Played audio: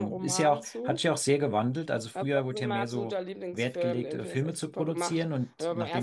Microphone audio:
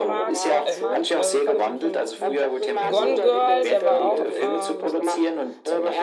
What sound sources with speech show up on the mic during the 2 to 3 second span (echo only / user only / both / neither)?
both